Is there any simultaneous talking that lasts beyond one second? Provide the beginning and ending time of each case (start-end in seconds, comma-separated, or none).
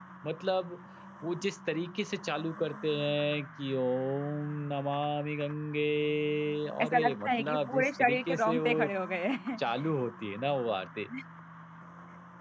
6.8-8.9